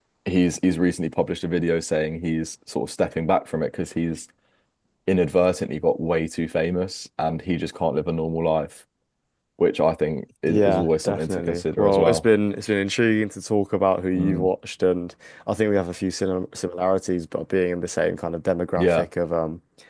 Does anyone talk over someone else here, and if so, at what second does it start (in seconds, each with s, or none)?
10.5 s